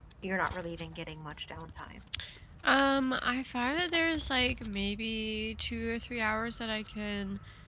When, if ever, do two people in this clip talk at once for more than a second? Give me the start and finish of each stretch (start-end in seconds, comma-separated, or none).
none